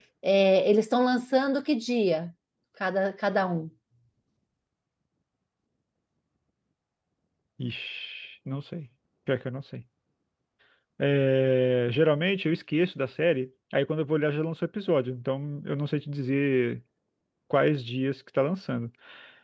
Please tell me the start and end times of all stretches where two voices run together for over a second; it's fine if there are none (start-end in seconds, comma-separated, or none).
none